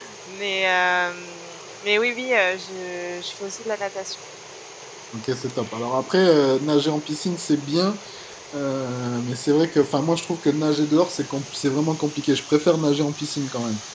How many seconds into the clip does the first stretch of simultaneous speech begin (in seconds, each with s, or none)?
none